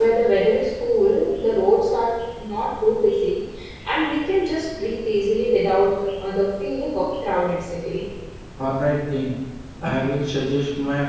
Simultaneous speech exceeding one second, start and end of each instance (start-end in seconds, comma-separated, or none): none